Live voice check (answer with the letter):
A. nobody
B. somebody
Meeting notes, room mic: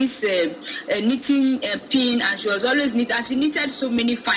A